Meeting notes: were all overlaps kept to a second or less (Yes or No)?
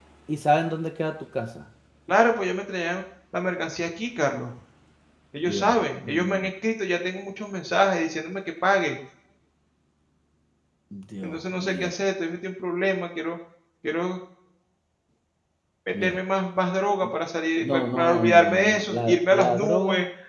No